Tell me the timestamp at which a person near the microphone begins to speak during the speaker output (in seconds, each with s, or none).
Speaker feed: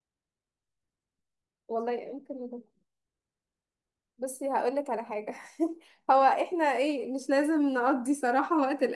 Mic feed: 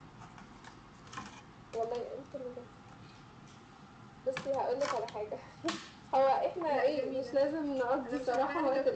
6.7 s